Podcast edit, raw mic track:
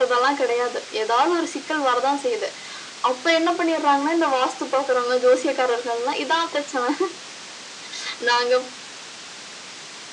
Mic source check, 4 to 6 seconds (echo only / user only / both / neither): echo only